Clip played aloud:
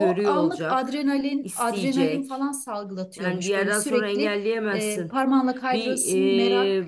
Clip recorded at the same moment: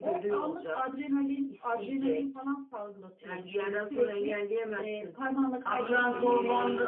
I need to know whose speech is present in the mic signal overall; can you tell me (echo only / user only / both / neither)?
both